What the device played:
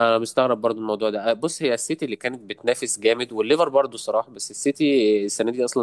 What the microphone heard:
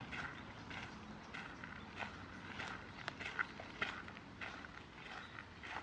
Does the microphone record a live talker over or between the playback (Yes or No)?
No